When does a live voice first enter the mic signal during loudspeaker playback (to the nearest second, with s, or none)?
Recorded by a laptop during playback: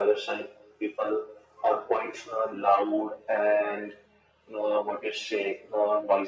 none